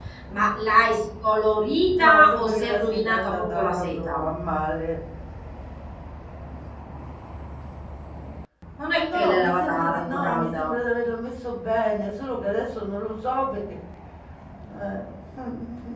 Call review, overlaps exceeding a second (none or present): present